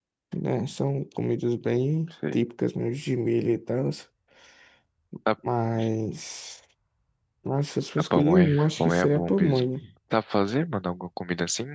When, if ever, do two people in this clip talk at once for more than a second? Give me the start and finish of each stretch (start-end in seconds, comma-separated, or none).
8.2-9.7